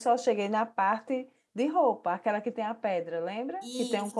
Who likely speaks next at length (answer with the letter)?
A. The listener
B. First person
A